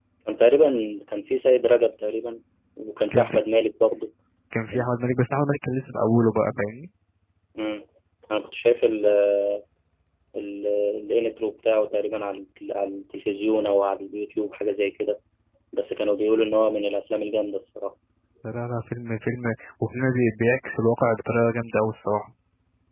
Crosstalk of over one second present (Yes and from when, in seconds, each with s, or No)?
No